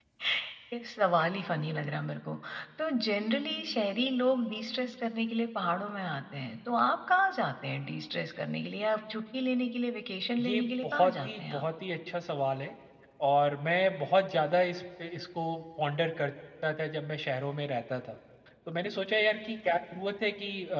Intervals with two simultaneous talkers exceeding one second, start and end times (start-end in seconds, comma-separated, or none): 10.4-11.7